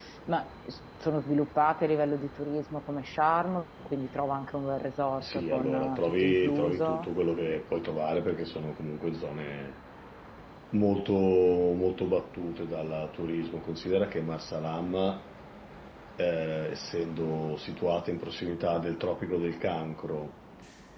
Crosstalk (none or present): present